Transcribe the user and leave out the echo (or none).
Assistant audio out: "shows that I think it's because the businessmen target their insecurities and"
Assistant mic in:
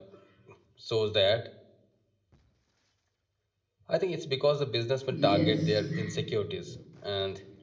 Yes.